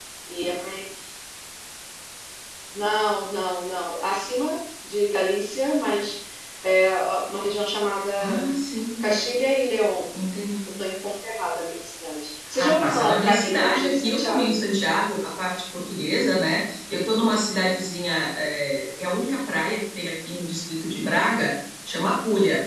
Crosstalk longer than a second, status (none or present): present